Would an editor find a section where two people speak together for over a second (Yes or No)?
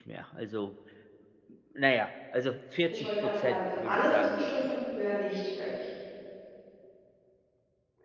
Yes